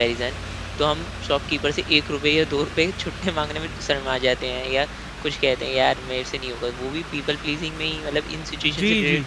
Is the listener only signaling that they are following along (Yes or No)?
No